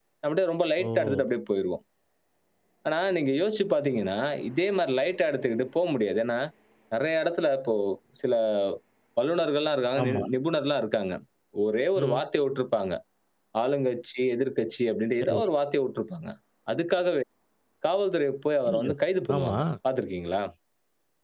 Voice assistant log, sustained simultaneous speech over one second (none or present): none